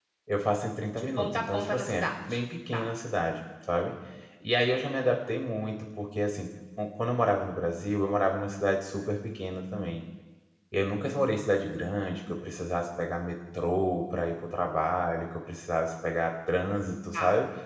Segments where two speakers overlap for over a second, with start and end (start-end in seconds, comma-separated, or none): 1.0-2.3